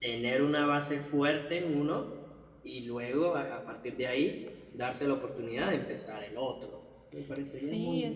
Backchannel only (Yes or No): No